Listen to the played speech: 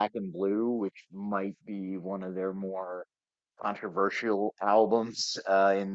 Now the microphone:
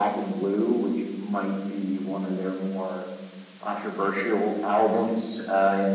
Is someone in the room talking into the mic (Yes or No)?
No